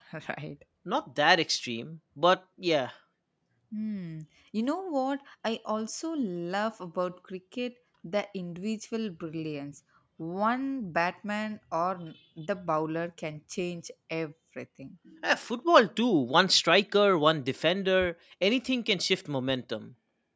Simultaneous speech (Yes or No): No